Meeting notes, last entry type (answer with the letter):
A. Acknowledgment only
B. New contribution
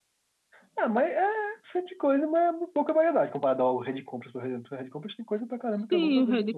B